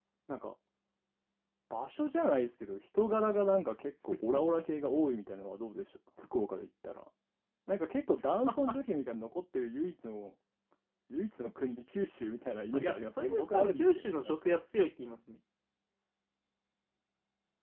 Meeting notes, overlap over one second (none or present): present